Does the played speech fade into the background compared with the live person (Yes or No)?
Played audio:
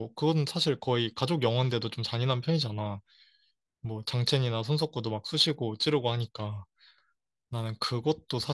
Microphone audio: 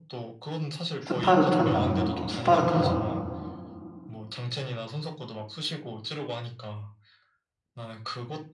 Yes